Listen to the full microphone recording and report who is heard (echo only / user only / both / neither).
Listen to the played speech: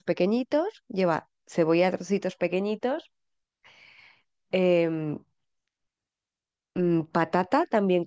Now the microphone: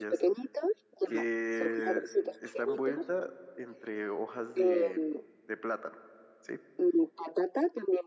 both